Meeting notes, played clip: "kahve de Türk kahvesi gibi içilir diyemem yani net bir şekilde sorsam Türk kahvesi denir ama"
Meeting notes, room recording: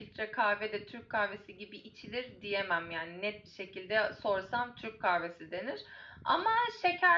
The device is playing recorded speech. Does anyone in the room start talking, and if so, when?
none

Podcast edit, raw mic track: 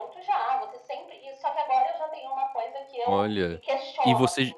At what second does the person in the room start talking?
3.0 s

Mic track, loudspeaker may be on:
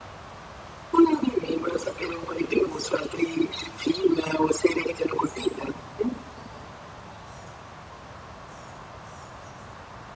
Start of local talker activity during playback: none

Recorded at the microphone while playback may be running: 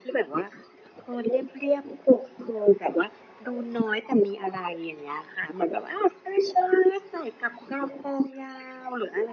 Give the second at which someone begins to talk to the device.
none

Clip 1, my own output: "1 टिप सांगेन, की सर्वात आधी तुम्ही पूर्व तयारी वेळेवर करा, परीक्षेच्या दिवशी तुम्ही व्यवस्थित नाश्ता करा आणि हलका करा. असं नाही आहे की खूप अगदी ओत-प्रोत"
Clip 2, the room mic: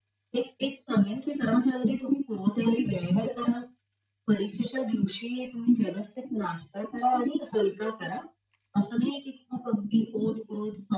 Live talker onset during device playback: none

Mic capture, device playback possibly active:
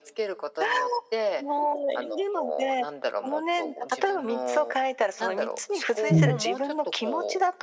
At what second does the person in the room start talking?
6.1 s

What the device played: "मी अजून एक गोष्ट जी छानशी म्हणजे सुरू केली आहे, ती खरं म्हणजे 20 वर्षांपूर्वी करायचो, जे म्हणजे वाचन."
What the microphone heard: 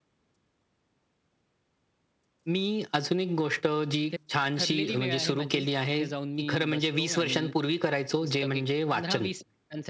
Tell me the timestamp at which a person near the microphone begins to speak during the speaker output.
4.0 s

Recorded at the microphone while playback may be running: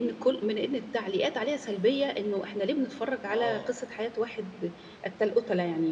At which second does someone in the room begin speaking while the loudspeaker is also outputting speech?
3.2 s

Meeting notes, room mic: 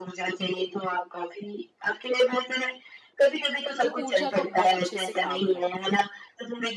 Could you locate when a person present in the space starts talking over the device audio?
3.8 s

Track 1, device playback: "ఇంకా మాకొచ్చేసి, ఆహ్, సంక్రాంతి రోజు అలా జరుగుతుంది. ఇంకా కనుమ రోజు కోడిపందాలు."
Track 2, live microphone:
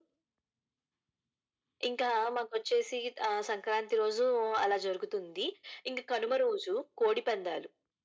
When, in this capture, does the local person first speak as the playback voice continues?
none

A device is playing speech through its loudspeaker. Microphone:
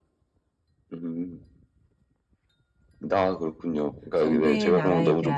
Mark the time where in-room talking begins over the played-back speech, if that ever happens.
4.1 s

